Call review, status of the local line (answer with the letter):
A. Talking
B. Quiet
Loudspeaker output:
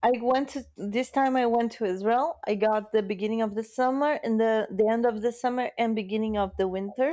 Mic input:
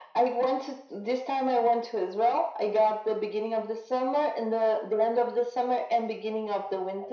B